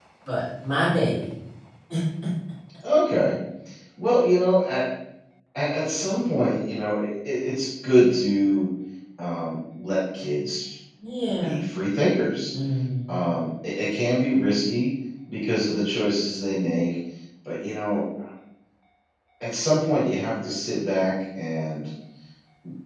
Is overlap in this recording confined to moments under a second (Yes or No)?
Yes